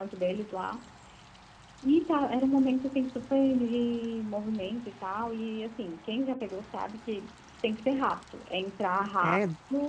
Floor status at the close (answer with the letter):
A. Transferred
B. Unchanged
A